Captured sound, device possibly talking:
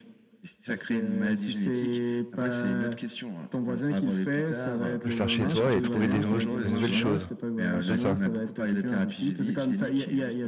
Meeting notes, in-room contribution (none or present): present